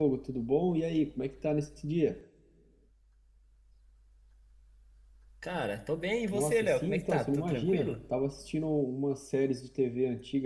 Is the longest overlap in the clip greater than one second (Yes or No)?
Yes